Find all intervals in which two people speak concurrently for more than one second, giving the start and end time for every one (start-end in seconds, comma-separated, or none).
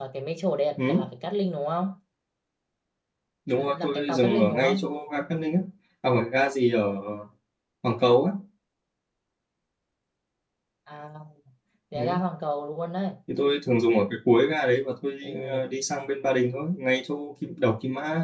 3.6-4.8